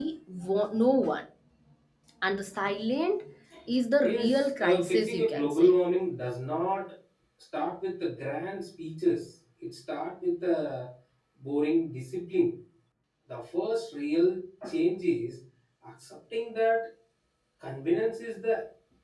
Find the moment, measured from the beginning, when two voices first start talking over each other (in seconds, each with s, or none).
4.0 s